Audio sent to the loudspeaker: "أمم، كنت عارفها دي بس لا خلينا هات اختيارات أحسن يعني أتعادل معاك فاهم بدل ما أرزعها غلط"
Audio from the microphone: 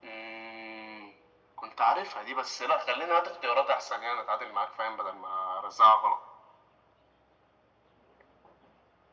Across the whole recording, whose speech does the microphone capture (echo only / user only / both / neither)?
echo only